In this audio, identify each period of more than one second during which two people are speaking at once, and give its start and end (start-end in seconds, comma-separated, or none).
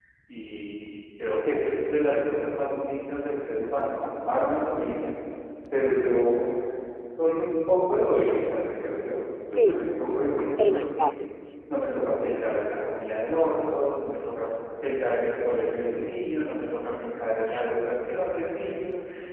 none